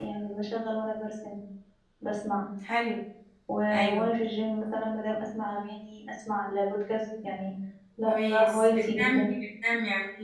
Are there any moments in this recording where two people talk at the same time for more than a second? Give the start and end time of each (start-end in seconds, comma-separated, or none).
8.0-9.3